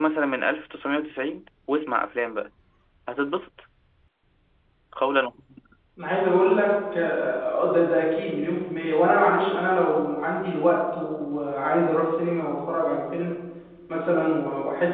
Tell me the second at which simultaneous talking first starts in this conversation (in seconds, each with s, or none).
none